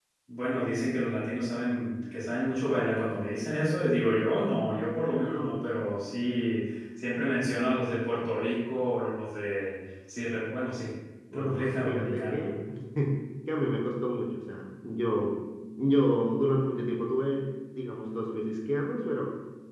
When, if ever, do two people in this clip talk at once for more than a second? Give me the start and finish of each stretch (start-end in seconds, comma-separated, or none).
11.3-12.6